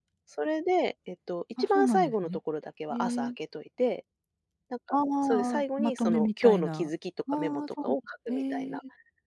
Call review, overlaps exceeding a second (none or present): present